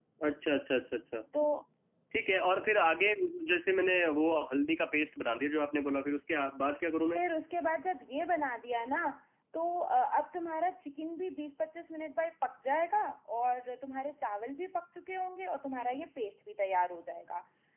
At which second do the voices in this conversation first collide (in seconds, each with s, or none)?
none